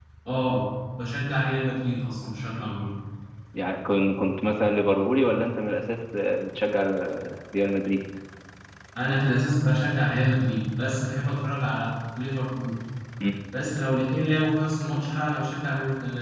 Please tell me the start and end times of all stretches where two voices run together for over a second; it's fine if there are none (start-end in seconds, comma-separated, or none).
none